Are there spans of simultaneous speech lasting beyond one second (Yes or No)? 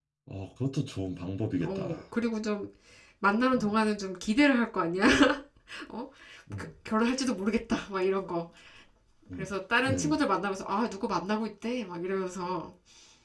No